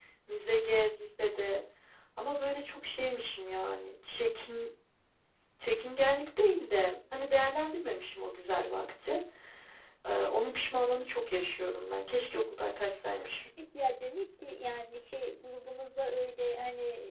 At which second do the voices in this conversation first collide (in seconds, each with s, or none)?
none